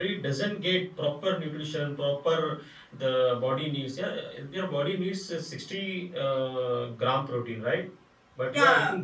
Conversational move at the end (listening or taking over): taking over